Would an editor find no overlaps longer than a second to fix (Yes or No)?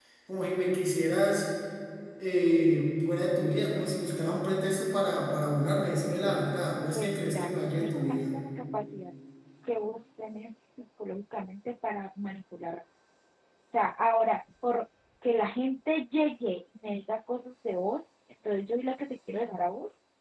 No